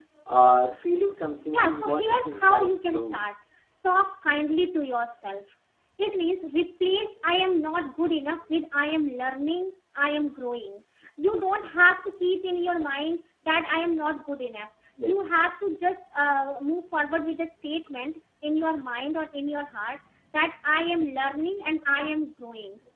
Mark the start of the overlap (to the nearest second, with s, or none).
2 s